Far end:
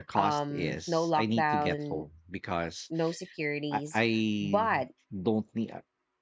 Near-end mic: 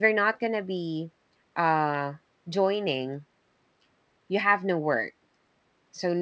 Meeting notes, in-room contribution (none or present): present